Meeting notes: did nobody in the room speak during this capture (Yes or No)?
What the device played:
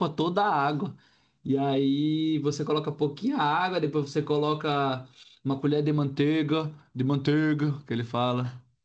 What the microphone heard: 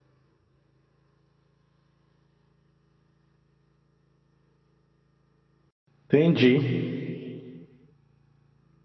No